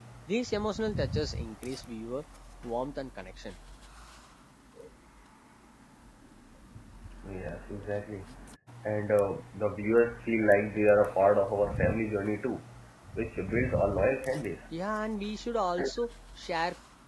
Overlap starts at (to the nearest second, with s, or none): none